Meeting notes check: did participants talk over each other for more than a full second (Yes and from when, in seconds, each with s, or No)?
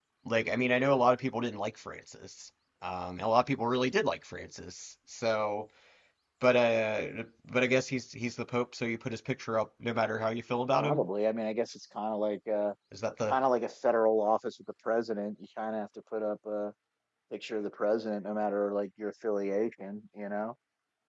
No